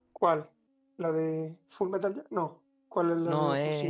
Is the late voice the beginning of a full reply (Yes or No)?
Yes